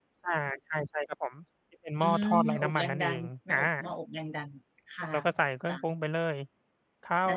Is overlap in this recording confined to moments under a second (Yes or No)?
No